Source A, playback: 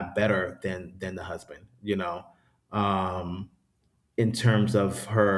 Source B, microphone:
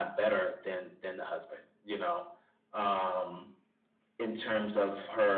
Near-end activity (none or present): none